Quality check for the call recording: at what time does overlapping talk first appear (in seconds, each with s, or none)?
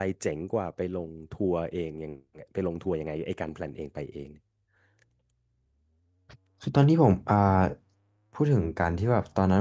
none